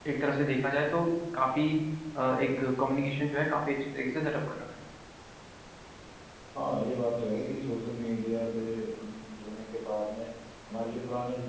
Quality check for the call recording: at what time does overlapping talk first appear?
none

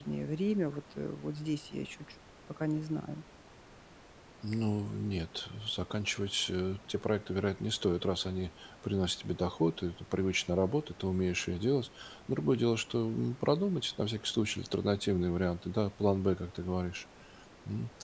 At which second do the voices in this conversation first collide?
none

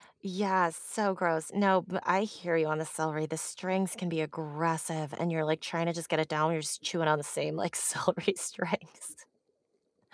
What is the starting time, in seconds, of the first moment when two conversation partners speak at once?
none

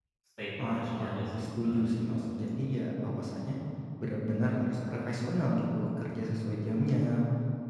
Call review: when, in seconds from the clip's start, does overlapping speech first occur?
0.6 s

